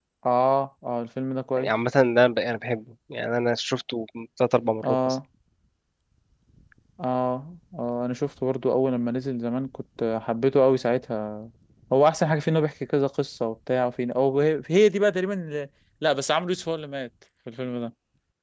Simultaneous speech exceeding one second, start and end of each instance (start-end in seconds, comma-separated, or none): none